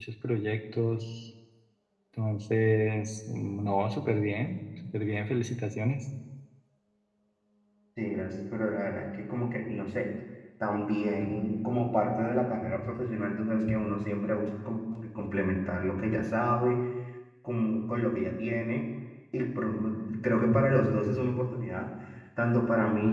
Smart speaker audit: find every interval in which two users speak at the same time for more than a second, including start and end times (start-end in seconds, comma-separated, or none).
none